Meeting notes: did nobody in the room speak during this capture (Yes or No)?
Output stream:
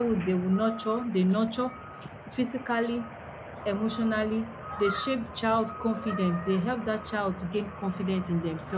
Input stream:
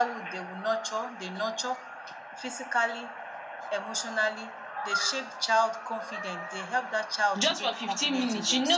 No